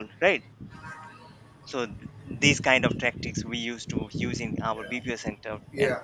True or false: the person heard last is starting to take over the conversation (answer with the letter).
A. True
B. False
A